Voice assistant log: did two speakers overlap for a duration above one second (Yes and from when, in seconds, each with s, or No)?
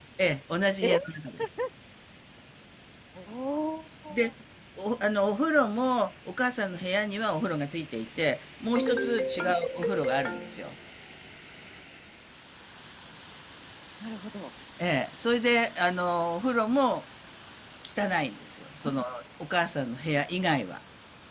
No